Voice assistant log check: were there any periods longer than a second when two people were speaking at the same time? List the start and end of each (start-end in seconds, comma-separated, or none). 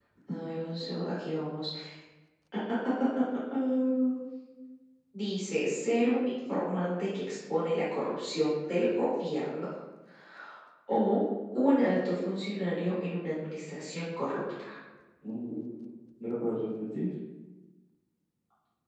none